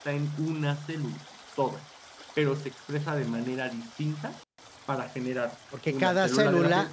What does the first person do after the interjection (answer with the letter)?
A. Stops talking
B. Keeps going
A